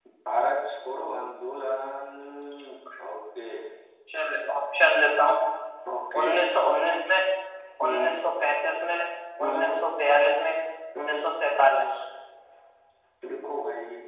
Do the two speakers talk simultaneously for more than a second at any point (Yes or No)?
No